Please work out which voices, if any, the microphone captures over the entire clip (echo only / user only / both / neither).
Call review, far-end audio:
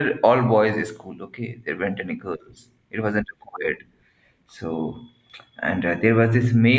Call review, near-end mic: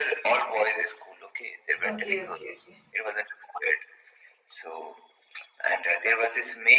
both